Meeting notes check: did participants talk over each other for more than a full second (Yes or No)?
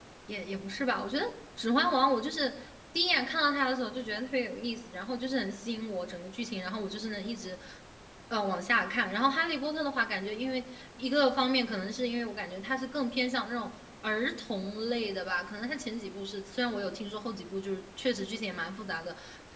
No